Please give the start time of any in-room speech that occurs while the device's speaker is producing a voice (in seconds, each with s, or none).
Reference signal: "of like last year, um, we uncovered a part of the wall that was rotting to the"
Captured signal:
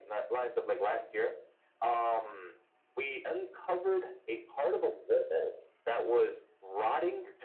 none